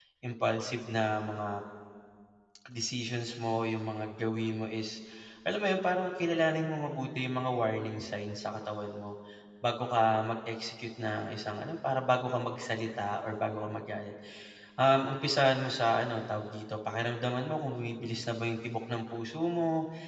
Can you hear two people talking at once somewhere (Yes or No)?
No